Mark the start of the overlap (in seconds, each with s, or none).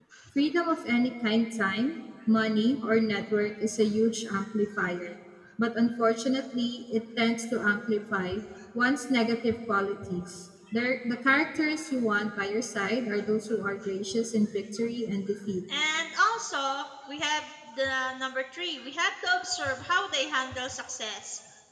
none